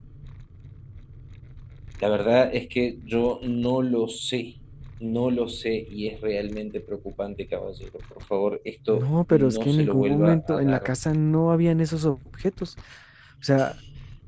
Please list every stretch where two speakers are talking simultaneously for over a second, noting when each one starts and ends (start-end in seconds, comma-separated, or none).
8.9-10.9